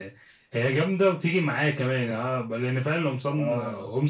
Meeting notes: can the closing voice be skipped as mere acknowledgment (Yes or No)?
Yes